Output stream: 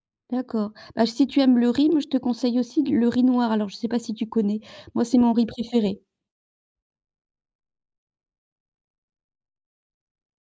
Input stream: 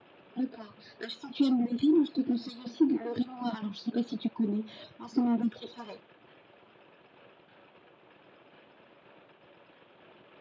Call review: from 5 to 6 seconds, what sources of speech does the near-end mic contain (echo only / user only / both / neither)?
echo only